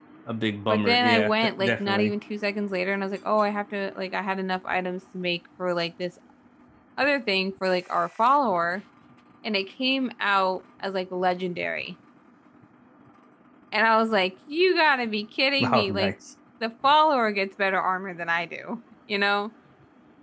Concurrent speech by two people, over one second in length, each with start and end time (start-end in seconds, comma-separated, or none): 0.7-2.1